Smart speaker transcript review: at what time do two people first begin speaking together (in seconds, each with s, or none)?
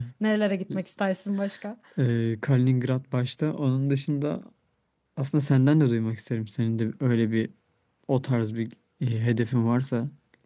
none